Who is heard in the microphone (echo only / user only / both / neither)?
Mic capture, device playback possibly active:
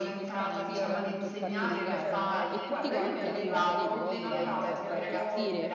both